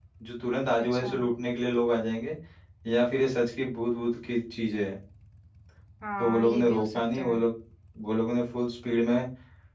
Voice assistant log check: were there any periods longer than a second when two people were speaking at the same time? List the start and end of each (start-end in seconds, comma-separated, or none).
6.2-7.4